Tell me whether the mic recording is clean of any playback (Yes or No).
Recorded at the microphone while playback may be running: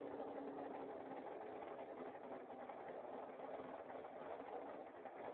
Yes